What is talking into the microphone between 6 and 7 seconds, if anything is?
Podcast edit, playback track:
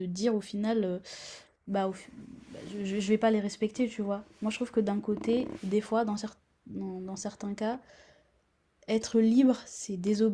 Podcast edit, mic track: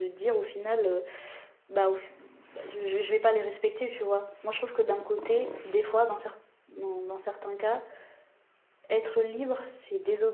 echo only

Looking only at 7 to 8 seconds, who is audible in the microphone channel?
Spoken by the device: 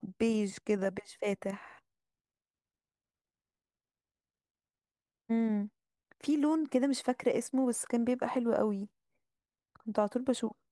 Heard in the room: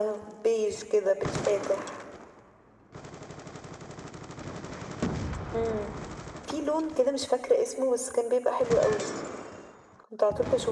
echo only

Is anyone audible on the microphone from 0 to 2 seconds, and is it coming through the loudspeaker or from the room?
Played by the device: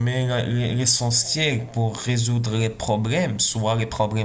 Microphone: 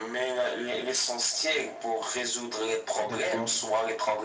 echo only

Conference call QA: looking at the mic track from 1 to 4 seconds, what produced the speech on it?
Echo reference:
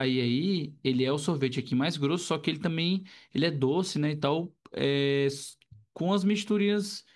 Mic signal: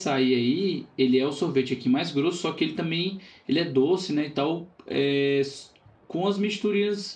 echo only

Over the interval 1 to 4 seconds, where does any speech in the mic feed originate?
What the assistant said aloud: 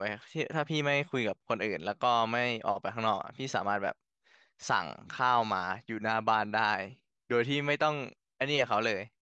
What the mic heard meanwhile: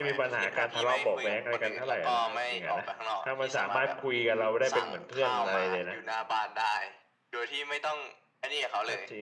both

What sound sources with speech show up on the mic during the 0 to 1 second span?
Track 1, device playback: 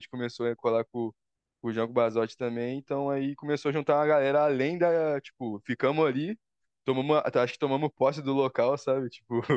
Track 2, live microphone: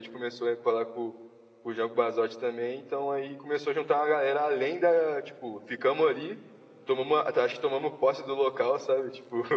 echo only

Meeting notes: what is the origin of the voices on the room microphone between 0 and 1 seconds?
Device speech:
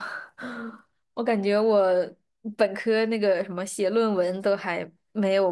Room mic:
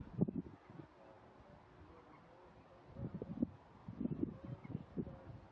neither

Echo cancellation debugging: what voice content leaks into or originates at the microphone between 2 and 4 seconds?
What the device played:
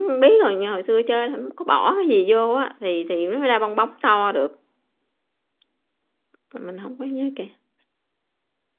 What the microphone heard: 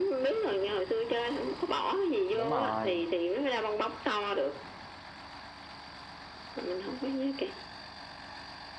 both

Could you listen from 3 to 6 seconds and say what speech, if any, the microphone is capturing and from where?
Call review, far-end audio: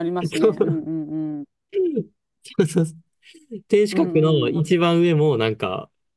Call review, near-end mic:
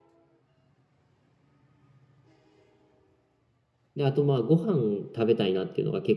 user only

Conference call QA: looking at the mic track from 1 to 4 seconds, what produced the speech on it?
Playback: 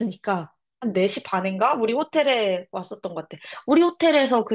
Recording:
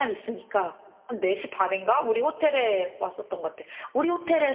echo only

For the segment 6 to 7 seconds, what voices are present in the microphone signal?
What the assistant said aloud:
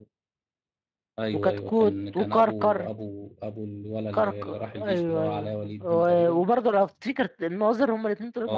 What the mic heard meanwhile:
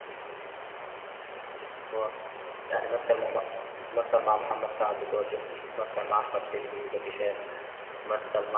user only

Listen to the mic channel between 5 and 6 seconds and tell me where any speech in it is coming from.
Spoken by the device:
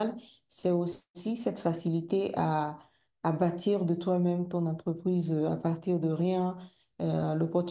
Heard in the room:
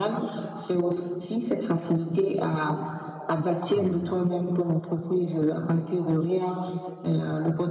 echo only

